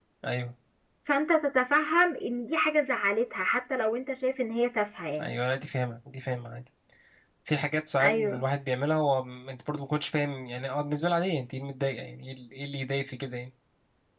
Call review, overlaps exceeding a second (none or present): none